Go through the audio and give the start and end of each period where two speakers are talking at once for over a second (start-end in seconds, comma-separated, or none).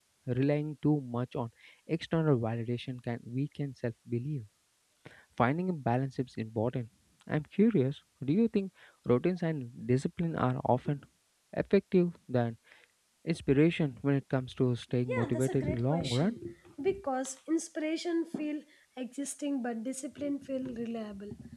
15.1-16.4